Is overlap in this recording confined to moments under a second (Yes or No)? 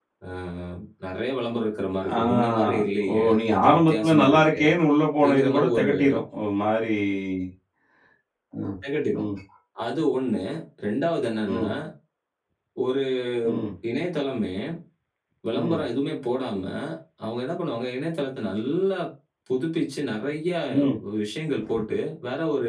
No